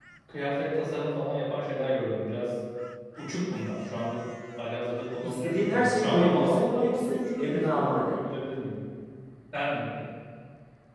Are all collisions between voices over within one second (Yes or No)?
No